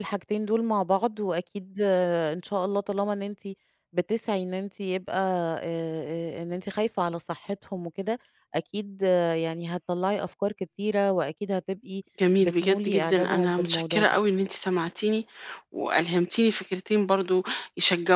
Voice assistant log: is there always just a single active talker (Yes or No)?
No